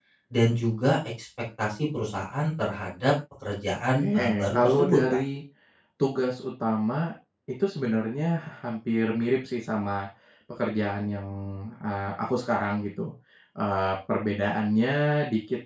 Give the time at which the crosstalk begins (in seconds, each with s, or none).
3.9 s